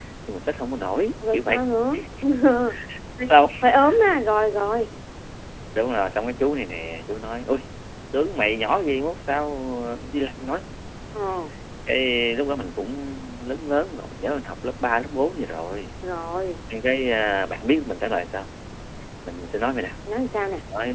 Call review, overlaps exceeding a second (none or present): none